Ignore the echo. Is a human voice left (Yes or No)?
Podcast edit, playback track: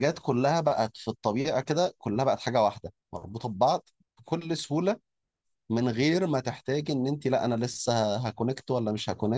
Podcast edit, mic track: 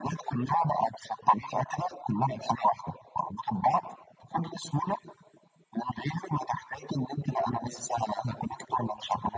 No